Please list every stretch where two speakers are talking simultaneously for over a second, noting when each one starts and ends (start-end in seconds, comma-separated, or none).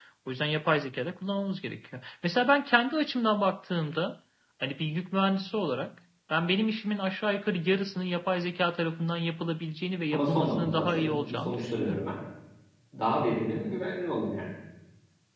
10.1-12.1